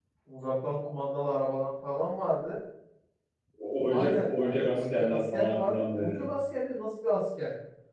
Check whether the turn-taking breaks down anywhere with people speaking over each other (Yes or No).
Yes